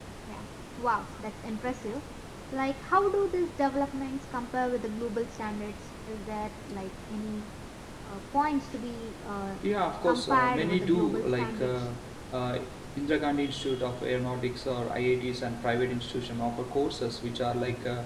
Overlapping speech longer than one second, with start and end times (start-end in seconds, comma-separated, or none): 10.1-11.9